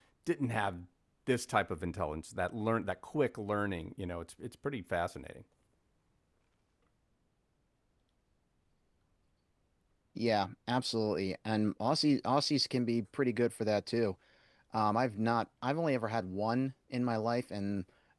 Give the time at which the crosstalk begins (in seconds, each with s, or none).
none